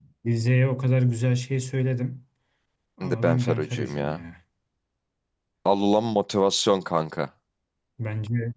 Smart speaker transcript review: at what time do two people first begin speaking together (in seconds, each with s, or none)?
3.0 s